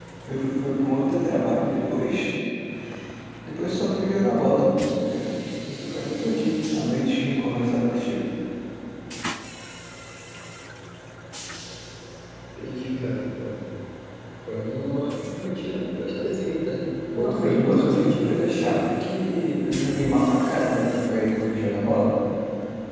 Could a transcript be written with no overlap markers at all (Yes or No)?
No